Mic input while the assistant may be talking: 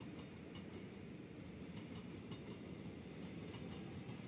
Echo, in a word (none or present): none